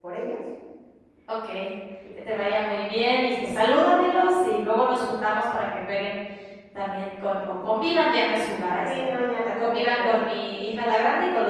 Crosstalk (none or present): present